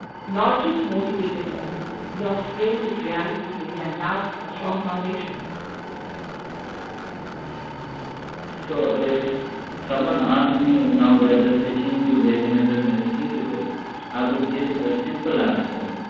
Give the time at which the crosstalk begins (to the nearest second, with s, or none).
none